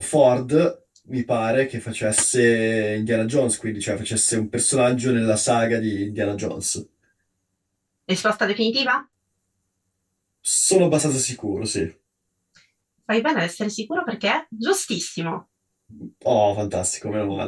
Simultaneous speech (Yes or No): No